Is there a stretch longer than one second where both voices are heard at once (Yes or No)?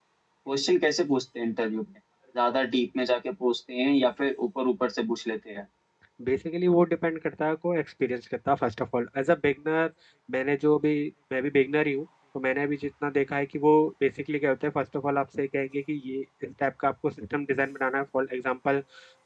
No